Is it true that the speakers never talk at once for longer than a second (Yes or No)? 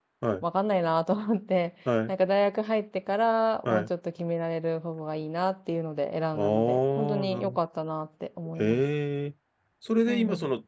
No